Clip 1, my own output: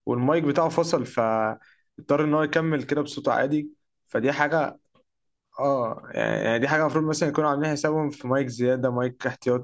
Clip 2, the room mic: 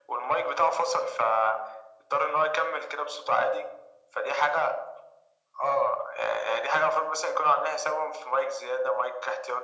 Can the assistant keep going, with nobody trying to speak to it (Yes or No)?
Yes